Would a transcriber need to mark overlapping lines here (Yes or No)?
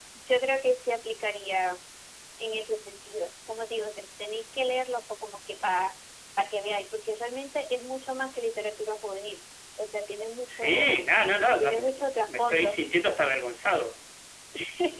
Yes